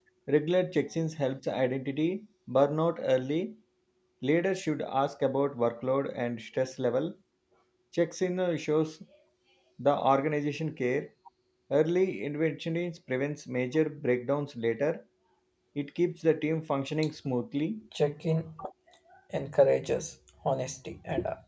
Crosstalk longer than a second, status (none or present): none